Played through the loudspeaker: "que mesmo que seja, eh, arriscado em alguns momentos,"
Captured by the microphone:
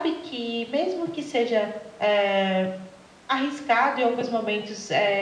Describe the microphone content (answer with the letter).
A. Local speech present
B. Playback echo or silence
B